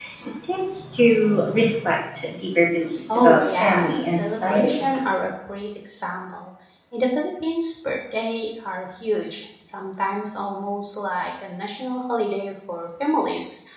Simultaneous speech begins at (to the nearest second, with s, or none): 3 s